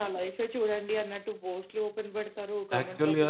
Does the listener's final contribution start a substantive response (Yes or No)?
Yes